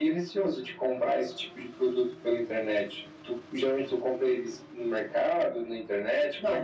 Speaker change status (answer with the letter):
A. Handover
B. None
A